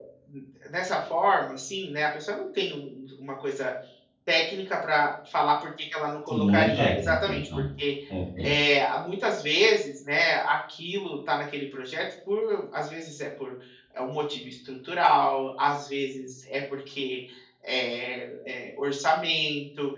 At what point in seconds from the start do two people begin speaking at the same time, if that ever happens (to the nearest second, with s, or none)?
6 s